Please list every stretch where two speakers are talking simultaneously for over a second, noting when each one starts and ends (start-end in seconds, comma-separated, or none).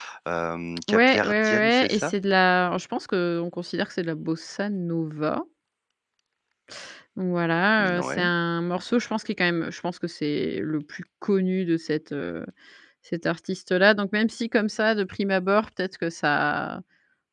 0.9-2.1